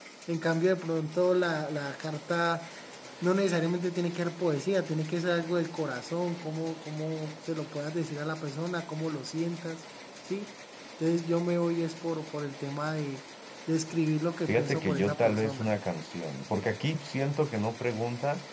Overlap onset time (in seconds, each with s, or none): 14.5 s